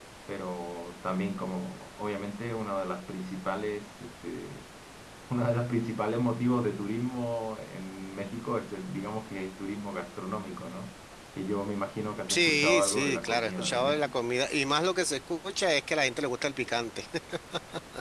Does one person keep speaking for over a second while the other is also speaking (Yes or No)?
Yes